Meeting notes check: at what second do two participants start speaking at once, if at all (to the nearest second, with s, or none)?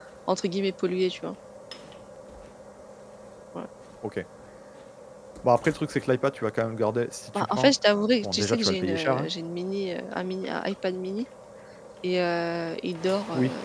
7 s